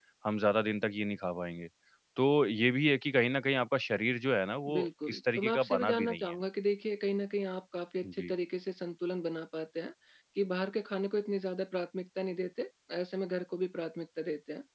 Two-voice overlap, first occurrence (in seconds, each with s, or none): 4.7 s